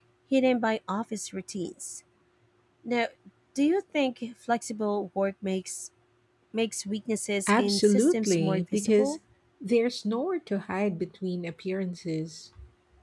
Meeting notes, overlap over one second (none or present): present